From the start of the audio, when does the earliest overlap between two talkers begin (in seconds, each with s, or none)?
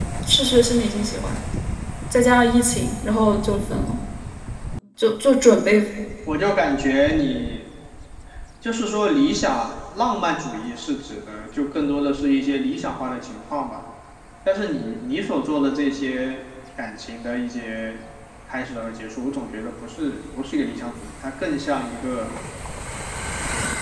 none